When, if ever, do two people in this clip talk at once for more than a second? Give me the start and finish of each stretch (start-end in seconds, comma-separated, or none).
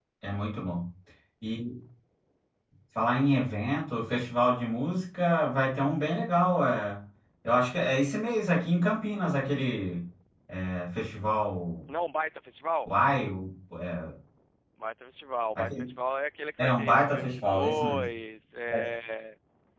16.6-18.0